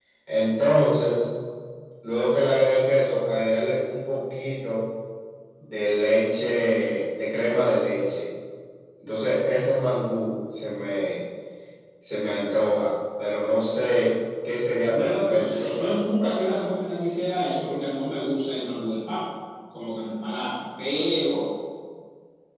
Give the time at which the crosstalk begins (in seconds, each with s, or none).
14.9 s